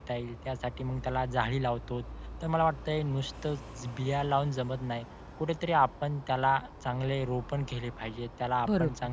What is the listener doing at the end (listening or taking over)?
listening